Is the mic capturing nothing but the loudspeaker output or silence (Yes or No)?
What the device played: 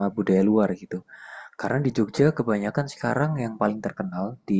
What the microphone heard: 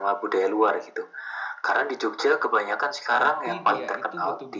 No